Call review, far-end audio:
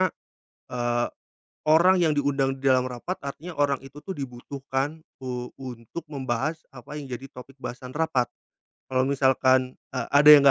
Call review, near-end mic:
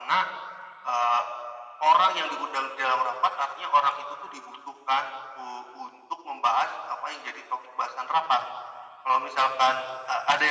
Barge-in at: none

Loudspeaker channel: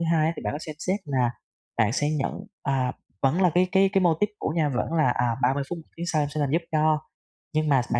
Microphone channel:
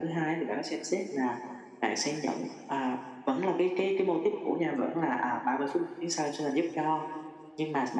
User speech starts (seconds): none

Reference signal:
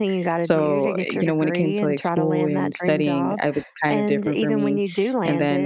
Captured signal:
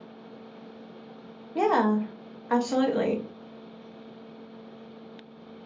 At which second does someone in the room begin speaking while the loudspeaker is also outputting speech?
1.6 s

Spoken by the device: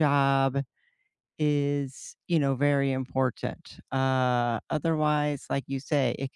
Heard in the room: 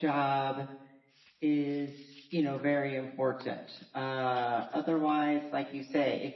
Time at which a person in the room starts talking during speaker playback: none

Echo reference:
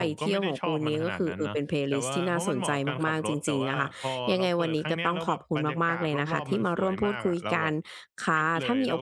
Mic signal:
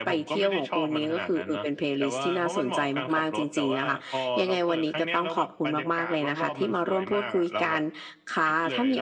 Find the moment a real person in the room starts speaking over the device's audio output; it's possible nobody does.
none

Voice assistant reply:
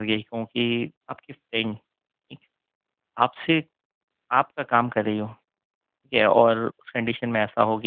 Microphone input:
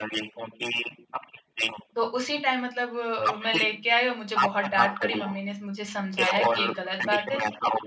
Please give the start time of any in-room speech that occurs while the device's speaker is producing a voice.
1.9 s

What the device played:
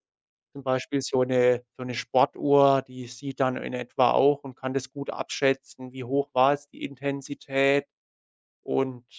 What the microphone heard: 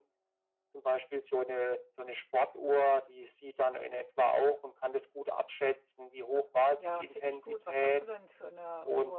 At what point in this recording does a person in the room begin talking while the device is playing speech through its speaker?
6.8 s

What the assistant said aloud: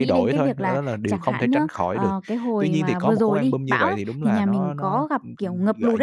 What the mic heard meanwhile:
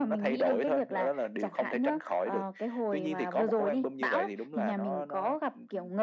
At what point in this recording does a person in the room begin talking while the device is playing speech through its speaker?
none

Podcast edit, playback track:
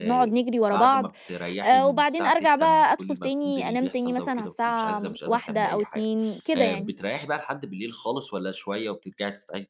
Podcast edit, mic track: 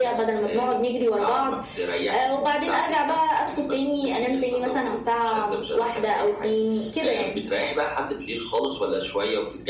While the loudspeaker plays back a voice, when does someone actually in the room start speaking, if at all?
none

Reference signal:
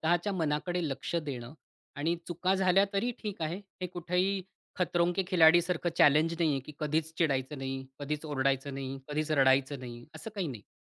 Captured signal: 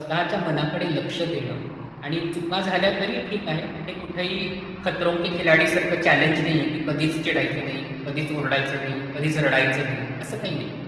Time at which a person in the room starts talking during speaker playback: none

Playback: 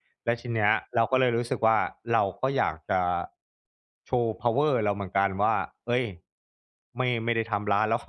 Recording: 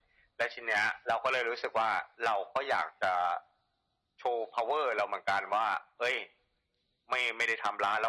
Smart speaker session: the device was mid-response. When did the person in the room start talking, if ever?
none

